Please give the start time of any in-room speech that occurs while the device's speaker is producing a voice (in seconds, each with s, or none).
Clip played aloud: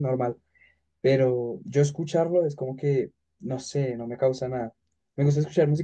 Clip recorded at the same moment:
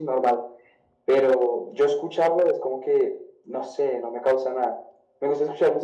none